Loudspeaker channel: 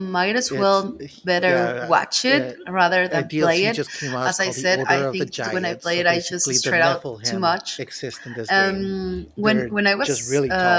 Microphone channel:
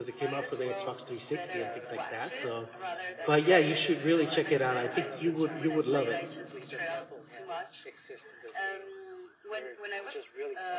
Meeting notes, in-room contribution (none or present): present